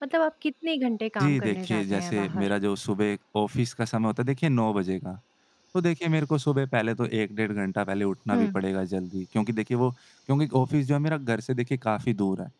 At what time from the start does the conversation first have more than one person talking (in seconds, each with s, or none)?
1.2 s